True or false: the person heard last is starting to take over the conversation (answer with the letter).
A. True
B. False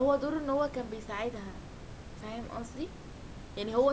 B